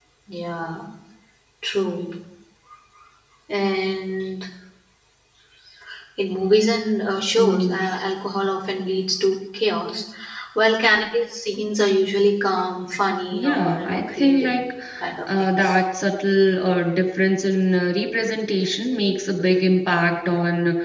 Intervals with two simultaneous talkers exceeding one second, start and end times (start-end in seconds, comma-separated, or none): 13.3-14.6